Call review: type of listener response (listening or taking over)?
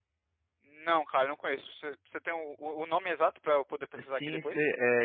taking over